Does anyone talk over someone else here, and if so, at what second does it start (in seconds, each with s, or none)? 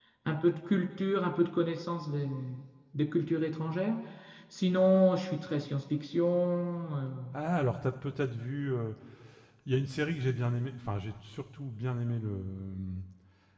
none